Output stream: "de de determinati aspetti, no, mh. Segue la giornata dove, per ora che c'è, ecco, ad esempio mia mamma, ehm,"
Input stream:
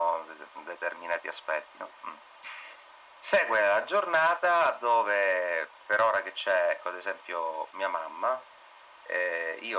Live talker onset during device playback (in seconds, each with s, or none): none